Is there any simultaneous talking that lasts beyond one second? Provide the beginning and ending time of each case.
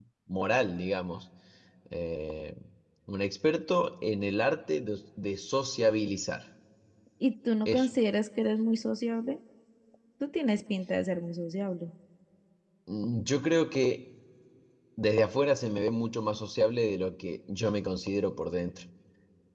none

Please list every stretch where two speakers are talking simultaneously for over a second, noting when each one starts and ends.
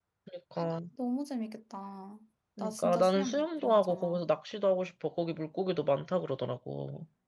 2.6-4.2

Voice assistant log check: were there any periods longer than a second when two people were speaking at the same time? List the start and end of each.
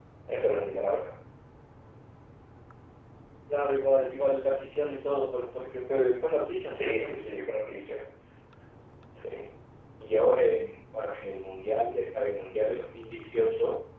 none

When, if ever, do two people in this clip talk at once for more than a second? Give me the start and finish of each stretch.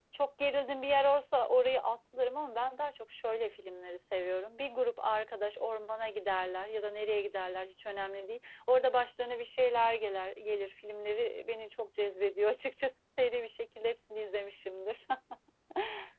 none

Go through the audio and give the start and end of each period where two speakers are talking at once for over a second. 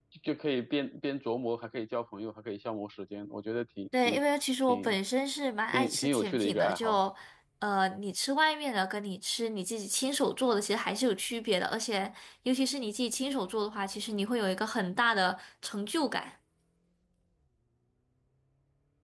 5.7-7.0

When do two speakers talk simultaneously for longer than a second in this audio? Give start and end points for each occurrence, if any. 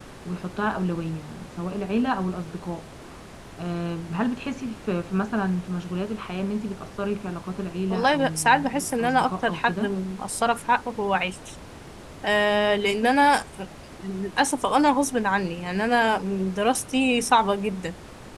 7.9-9.9

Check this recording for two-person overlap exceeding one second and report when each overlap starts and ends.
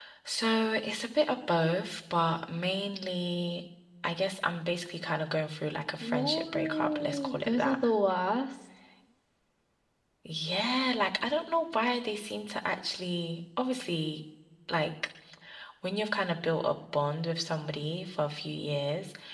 6.0-7.8

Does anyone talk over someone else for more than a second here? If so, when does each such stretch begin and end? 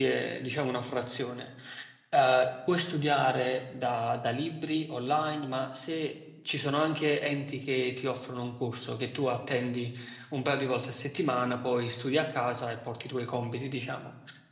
none

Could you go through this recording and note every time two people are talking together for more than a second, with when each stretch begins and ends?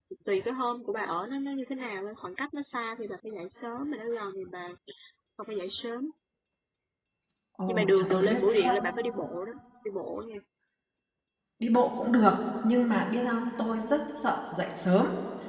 7.7-8.9

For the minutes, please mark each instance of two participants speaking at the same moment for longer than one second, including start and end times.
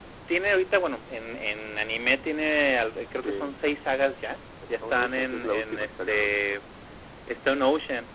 4.8-6.5

